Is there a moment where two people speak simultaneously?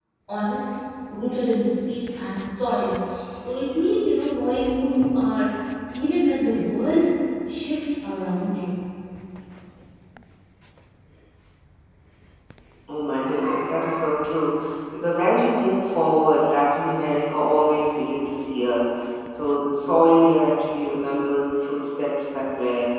No

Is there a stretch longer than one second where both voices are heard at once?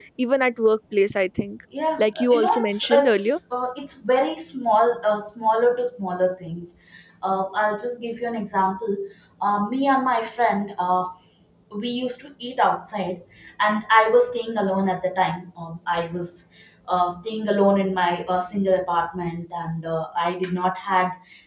Yes, from 2.0 s

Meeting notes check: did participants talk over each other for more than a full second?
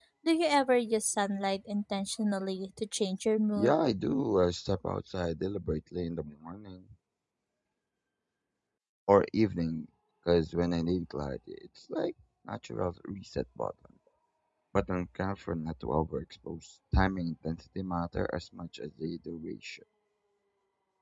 No

